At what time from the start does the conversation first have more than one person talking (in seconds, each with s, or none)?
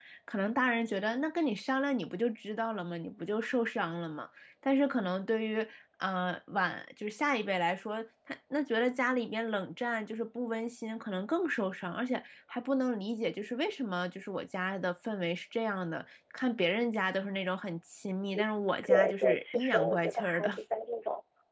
18.8 s